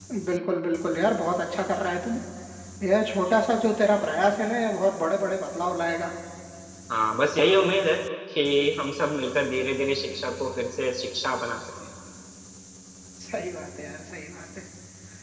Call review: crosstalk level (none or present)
none